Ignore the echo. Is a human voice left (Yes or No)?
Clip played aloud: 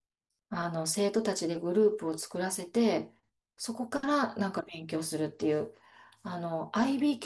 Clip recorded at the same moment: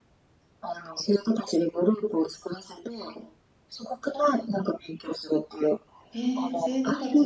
Yes